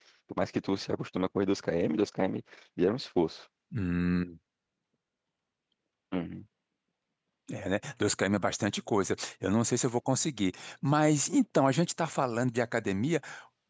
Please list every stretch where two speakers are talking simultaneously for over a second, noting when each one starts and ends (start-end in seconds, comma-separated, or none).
none